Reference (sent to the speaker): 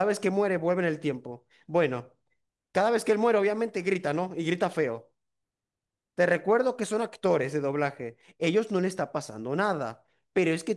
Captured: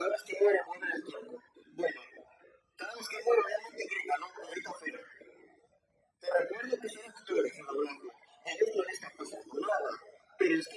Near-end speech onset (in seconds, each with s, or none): none